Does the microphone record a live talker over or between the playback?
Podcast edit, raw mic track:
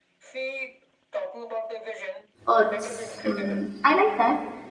Yes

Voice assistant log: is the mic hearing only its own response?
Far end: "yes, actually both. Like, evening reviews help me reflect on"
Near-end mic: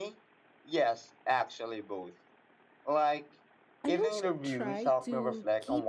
No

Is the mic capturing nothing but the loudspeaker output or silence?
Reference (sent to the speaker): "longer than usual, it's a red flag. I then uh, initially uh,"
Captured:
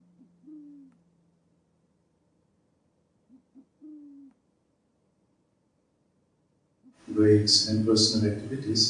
No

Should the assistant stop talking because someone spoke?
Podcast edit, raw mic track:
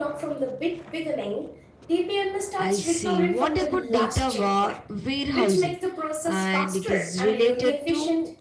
Yes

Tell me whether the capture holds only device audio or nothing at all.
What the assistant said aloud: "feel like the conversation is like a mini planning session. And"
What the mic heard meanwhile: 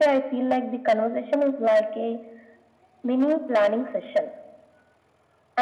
Yes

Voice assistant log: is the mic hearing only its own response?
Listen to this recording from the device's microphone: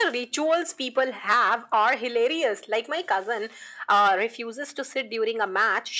Yes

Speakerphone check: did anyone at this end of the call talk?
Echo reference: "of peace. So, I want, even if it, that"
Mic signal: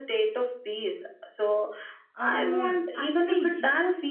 Yes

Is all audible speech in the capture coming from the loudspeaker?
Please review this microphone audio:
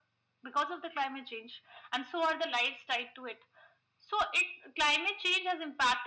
Yes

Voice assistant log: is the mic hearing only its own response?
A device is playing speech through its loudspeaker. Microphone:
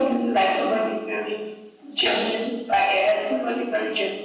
Yes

